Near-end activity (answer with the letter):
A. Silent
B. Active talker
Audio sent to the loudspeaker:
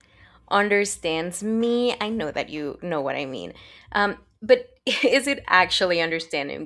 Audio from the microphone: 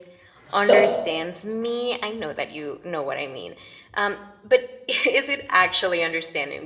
B